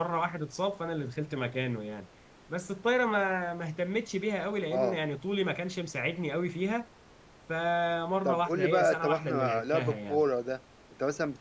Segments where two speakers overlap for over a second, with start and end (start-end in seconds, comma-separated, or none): 8.2-10.2